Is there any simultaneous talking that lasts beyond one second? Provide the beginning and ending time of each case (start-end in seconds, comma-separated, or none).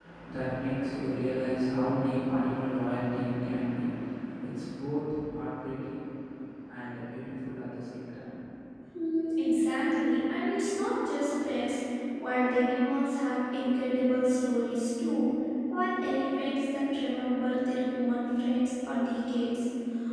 none